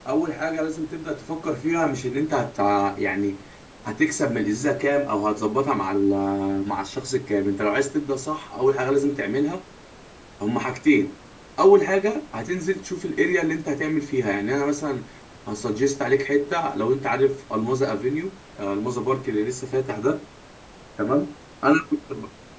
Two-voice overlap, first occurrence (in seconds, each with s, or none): none